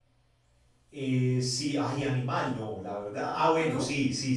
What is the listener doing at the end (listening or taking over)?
listening